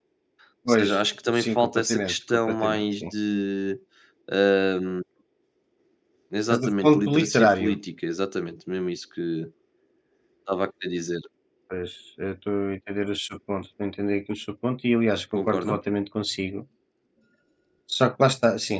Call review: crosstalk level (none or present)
present